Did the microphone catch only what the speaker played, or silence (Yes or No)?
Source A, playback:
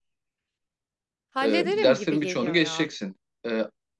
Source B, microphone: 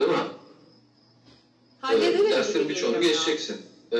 Yes